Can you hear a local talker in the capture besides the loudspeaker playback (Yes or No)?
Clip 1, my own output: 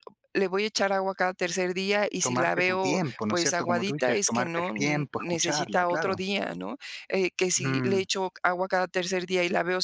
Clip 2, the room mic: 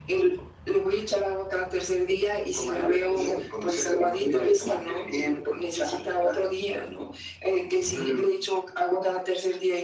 No